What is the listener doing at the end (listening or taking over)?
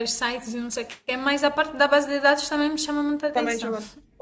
taking over